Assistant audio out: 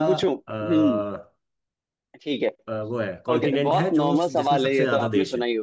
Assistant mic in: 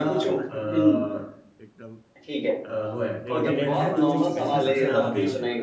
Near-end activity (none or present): present